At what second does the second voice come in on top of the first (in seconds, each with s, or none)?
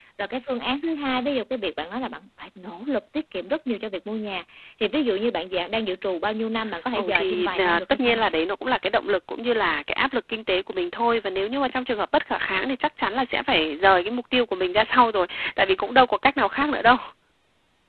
6.9 s